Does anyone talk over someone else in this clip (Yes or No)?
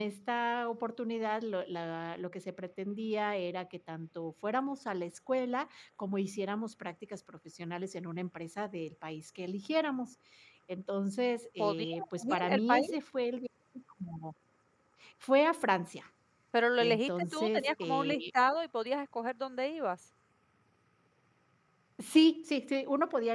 Yes